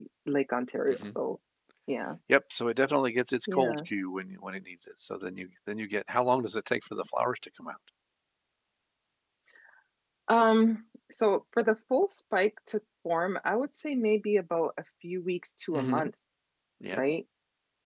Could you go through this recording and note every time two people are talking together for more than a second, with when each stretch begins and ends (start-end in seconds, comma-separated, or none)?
none